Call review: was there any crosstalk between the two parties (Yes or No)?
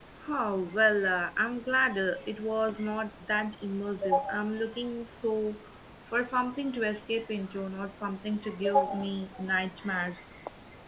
No